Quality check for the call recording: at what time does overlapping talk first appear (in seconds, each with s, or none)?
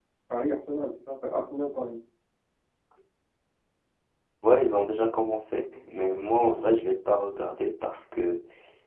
none